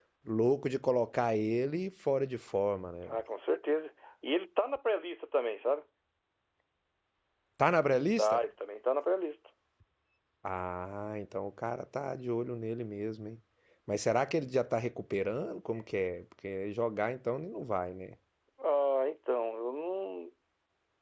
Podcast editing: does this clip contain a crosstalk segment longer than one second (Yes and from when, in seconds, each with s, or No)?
No